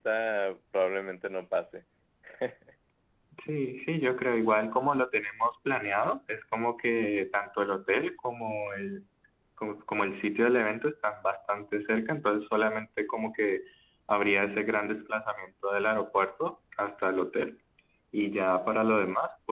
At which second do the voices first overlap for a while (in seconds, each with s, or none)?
none